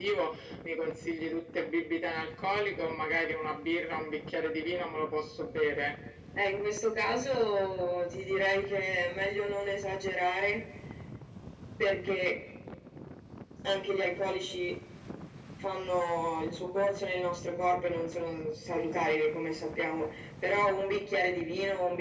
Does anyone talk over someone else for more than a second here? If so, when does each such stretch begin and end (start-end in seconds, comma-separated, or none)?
none